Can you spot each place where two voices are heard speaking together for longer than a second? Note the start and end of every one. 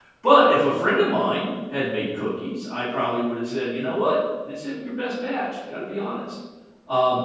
none

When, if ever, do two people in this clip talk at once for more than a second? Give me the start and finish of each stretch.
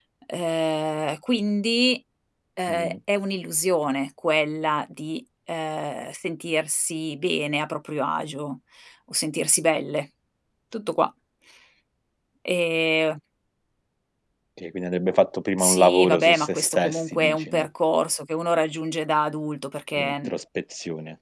15.6-17.7

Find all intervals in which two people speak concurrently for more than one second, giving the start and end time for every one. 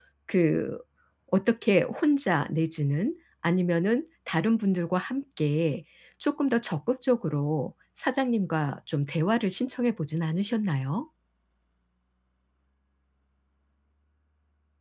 none

